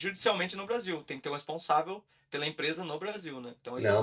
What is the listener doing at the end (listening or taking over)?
taking over